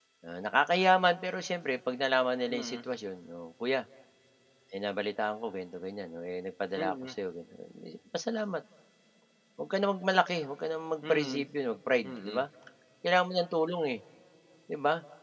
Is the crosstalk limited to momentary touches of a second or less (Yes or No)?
Yes